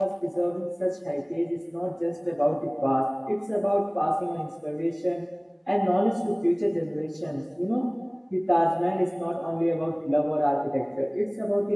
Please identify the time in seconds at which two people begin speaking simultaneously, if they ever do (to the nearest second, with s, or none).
none